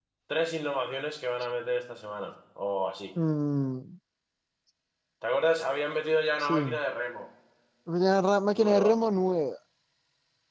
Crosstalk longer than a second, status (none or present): none